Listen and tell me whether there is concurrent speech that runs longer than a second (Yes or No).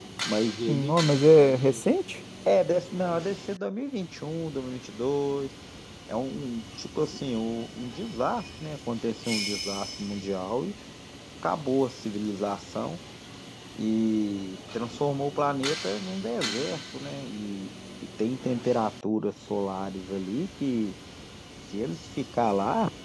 No